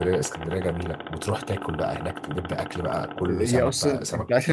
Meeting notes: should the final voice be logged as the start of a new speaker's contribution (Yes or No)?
Yes